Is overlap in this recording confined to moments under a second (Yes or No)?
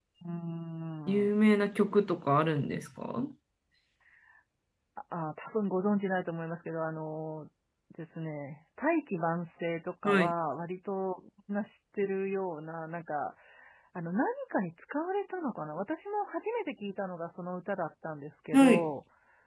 Yes